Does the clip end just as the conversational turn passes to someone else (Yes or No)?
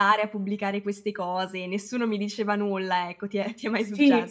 Yes